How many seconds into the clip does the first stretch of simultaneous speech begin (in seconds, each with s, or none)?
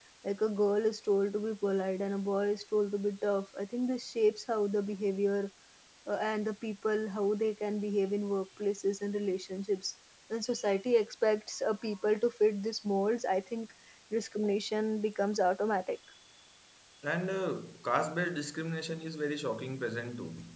none